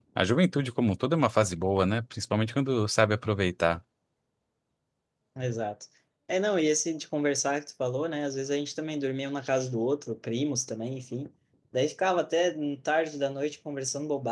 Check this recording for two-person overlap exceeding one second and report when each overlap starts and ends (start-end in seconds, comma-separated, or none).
none